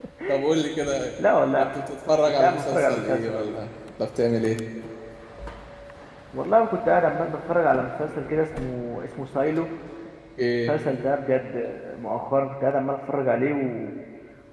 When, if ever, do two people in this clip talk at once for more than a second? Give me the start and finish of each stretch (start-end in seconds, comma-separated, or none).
2.4-3.6